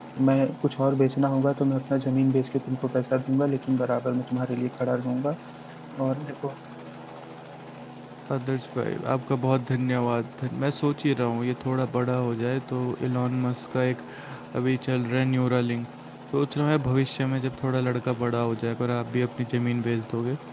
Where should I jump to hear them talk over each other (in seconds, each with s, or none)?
none